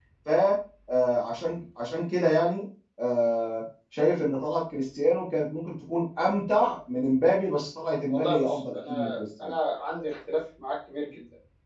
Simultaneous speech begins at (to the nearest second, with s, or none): 8 s